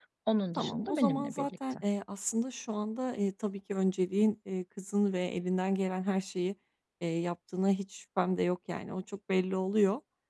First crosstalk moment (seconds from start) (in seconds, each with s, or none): 0.6 s